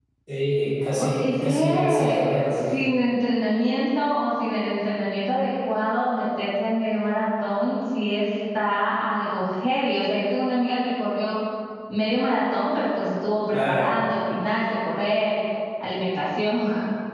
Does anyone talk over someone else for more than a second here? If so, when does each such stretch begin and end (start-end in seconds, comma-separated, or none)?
1.0-2.8